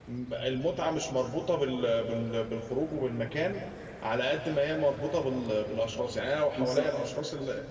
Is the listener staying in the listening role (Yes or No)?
Yes